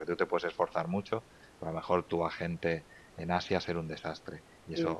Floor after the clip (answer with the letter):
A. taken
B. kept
B